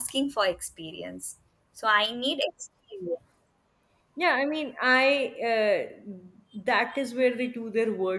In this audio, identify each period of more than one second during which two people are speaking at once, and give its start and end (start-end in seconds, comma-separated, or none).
none